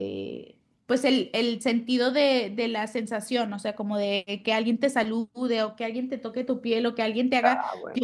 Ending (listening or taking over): listening